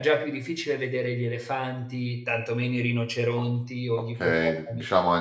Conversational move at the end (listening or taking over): taking over